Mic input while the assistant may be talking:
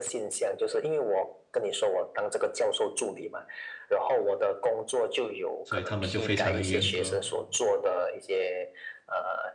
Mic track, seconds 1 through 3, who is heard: echo only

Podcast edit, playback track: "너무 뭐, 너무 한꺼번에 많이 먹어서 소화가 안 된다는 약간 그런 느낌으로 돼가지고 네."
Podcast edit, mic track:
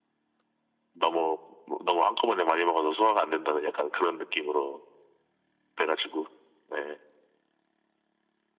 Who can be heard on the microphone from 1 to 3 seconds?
echo only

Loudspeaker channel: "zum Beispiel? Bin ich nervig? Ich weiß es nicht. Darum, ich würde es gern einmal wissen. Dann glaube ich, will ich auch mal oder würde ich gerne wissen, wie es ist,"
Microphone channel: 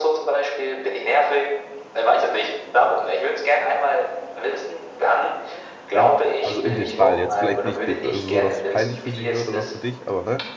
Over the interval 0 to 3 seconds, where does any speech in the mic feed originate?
echo only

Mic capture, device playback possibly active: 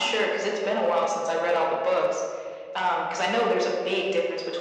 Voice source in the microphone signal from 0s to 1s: echo only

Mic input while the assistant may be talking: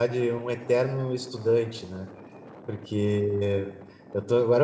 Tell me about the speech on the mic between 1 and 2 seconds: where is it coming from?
user only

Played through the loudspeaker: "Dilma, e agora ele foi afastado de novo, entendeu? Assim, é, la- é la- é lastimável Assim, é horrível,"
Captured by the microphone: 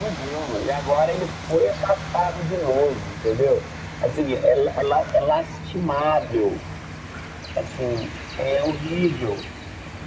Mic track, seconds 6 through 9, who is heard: echo only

